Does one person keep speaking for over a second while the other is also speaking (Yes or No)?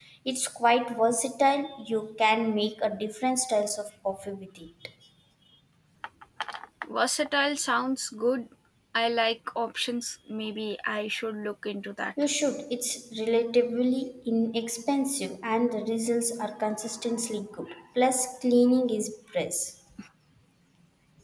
No